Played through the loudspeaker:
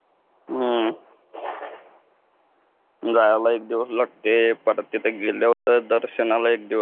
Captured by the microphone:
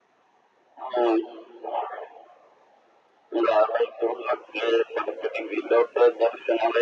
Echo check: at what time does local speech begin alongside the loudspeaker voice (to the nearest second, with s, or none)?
none